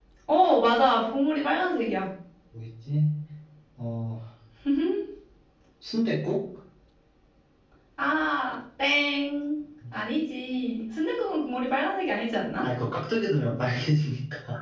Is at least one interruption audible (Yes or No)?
No